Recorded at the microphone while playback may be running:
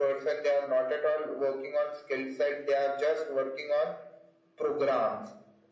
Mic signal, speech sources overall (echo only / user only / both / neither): echo only